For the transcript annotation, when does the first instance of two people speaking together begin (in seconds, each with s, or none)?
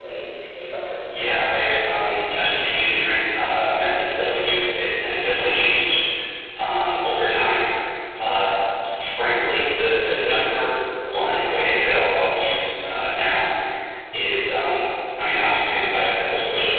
1.1 s